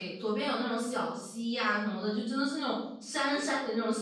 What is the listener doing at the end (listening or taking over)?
listening